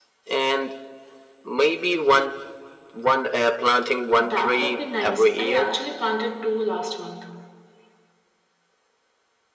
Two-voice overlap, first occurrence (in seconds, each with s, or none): 4.2 s